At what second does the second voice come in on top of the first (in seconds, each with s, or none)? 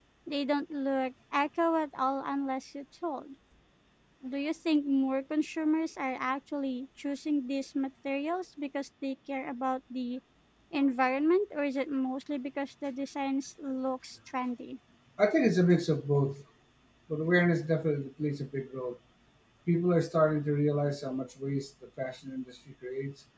none